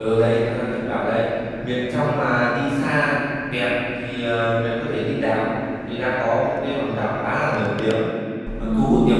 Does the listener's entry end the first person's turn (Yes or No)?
No